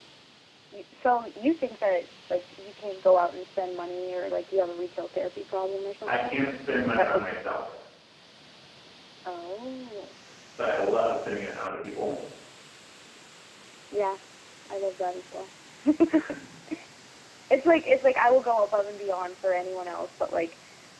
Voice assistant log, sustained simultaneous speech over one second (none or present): none